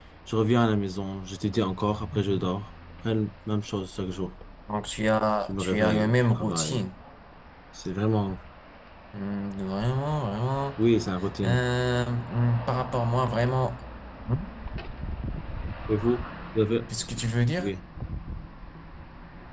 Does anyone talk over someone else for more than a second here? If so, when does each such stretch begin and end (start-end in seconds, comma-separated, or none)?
5.5-6.8